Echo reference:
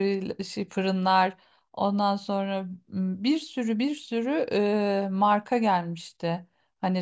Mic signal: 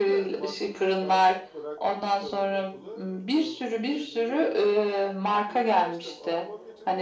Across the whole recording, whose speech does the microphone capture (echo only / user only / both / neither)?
both